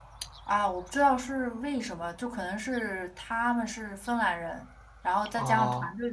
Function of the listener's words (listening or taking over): listening